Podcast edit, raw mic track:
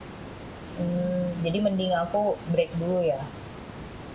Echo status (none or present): none